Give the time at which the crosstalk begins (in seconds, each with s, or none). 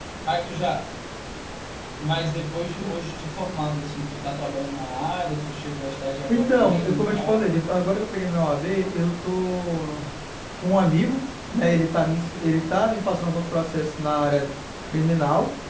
6.3 s